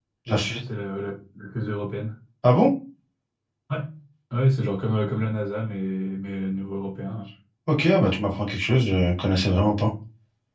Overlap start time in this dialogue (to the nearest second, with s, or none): none